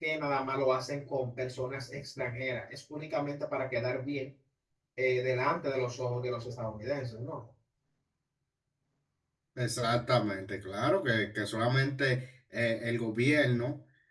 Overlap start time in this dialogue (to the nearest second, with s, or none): none